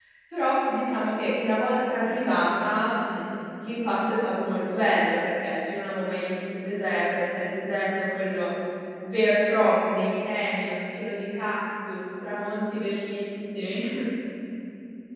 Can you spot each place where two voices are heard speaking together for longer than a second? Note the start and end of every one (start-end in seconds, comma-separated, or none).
none